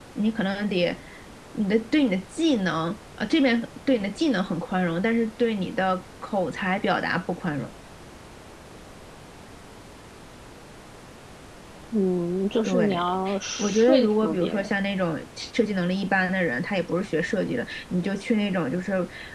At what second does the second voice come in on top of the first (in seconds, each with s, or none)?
12.7 s